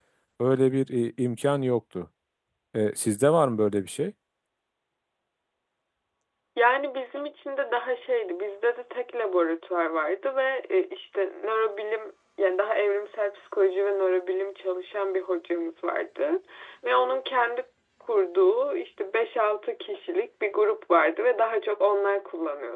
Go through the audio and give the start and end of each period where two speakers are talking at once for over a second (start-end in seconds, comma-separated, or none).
none